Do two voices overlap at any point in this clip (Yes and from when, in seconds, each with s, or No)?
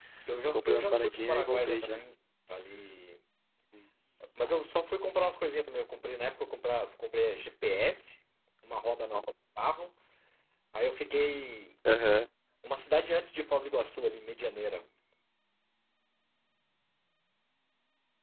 Yes, from 0.5 s